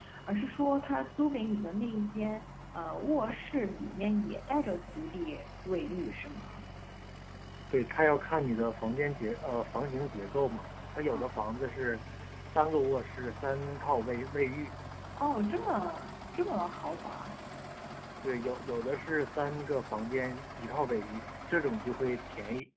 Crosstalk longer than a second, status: none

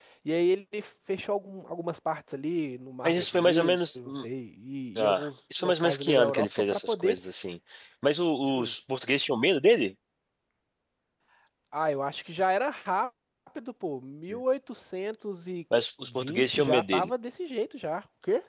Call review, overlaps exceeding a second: present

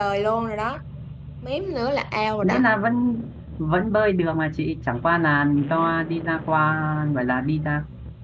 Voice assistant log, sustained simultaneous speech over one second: none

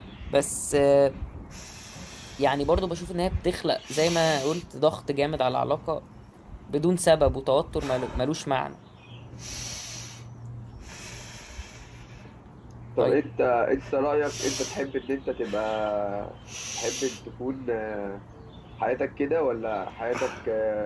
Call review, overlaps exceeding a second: none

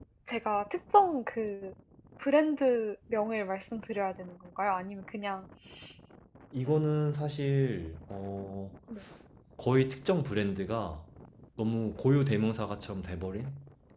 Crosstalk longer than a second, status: none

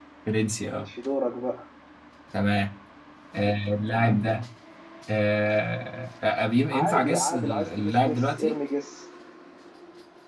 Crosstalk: present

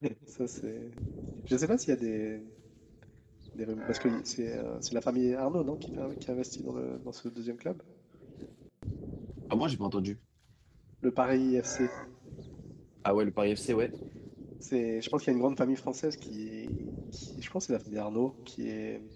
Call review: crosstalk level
none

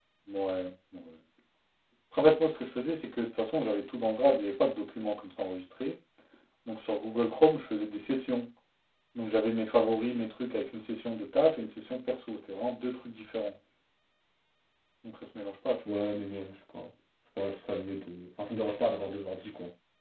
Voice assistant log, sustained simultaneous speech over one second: none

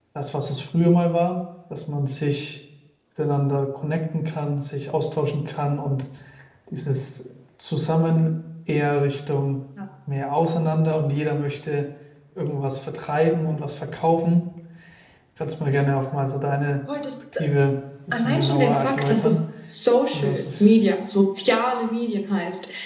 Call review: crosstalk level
present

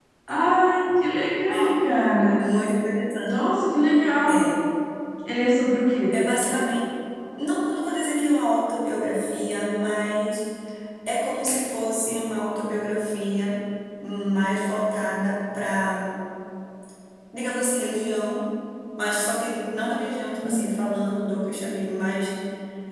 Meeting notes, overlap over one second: none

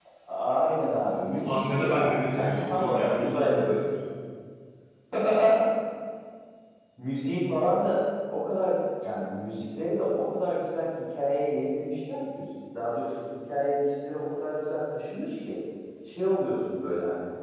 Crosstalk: present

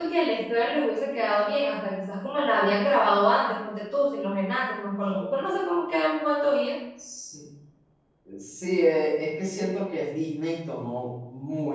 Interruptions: none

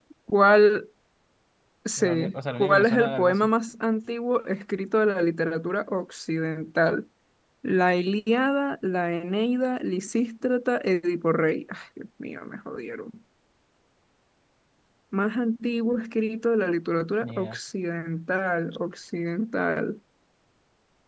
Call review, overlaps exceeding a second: present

